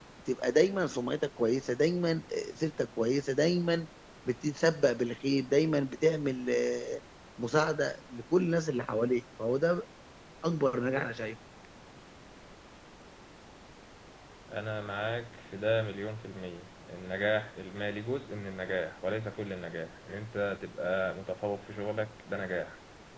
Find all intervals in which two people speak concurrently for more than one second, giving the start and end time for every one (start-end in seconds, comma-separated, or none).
none